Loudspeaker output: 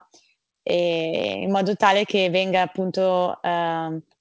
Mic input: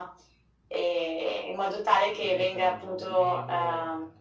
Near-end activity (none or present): present